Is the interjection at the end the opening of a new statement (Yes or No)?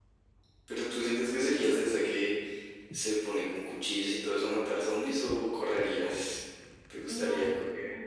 Yes